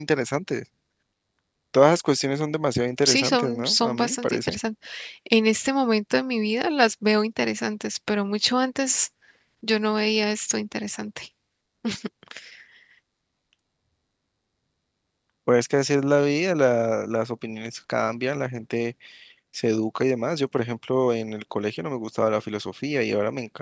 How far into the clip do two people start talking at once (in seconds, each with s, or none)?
3.0 s